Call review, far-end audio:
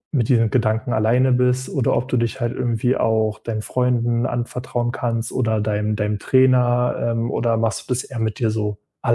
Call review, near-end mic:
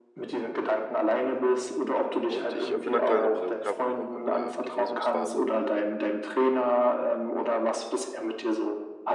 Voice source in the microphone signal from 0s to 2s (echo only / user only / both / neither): echo only